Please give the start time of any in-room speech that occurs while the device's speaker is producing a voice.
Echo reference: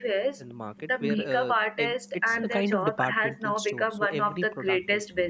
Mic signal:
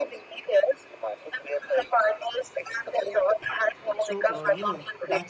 4.1 s

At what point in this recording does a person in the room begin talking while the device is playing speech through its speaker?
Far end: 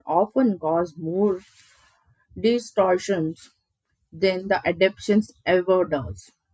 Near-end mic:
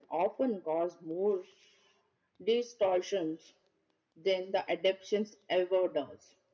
none

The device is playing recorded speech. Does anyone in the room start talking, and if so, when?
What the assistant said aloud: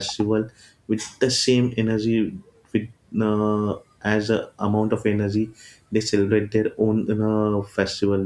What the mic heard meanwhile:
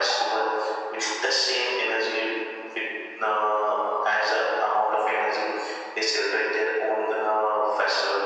none

